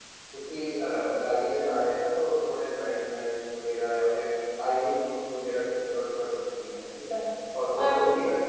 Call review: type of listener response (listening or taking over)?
listening